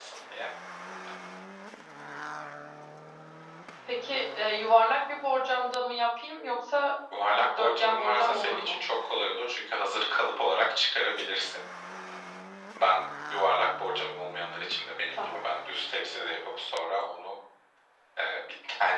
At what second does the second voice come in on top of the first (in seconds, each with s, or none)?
7.4 s